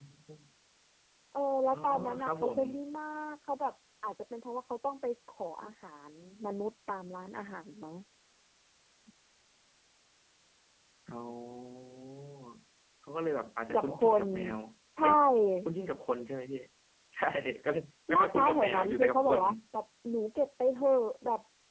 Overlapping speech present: Yes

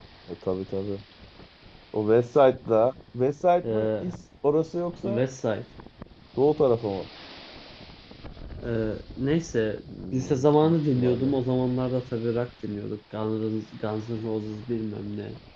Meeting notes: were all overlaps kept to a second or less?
No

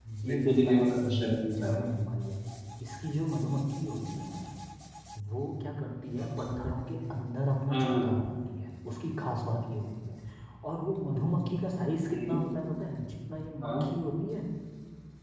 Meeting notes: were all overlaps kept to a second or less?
No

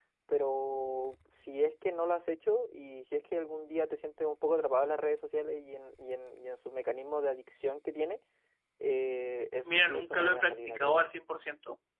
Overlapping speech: Yes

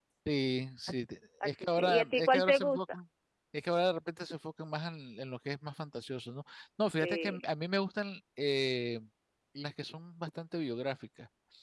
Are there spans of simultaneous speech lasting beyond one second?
Yes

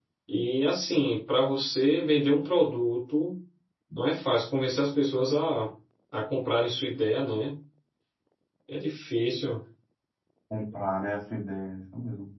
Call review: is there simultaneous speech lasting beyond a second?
No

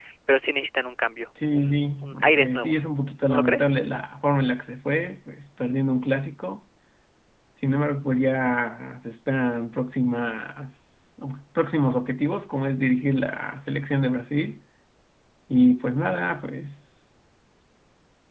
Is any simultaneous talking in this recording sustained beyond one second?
Yes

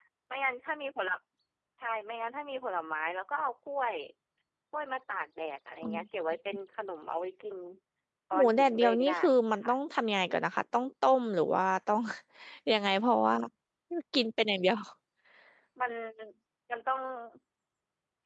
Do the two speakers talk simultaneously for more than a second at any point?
Yes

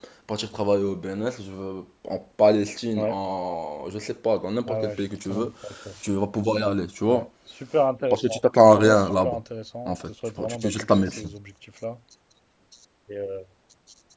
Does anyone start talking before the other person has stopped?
Yes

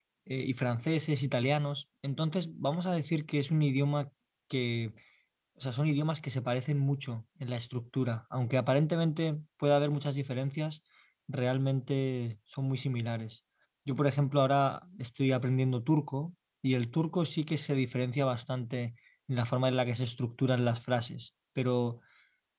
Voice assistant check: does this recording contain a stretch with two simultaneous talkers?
No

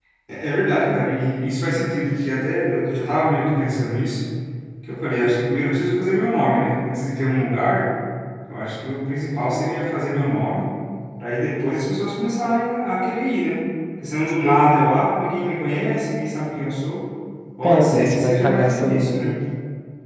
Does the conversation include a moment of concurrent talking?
Yes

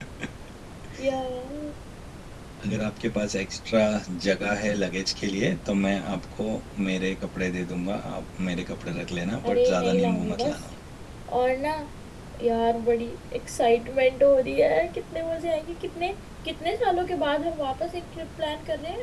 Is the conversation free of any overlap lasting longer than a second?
No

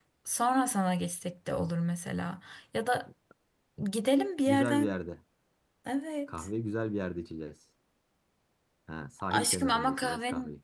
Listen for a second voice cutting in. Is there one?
Yes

